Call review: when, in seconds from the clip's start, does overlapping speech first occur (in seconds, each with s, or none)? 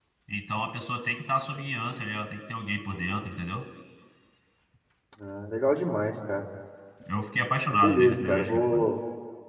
7.7 s